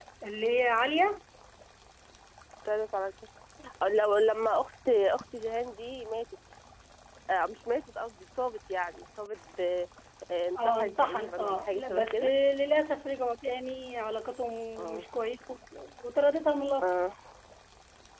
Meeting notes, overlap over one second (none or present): present